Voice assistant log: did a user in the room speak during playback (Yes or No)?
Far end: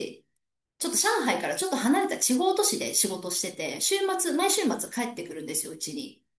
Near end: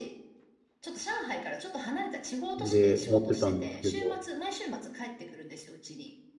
Yes